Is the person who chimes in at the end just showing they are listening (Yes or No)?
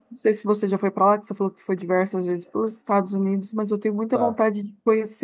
Yes